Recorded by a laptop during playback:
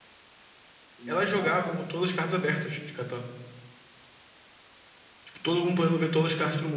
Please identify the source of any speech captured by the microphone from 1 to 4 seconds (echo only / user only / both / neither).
both